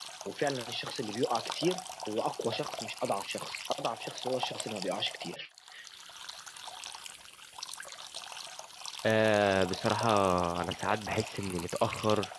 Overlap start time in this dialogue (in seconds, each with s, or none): none